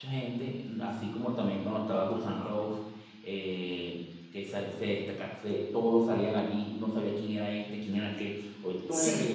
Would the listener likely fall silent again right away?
Yes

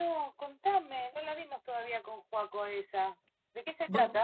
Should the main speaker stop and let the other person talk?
Yes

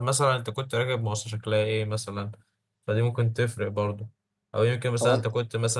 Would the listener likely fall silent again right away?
Yes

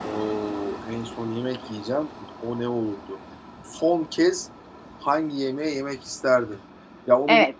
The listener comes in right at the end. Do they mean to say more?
Yes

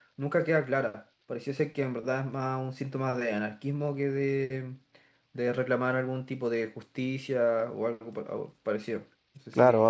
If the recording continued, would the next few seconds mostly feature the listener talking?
Yes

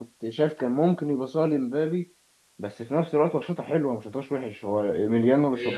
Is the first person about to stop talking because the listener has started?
Yes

